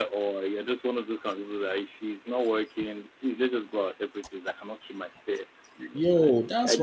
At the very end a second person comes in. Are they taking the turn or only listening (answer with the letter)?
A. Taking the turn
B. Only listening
A